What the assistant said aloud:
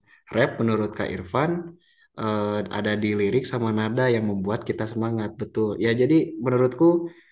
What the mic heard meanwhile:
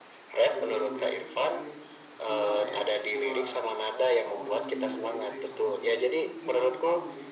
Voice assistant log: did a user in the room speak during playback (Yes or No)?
Yes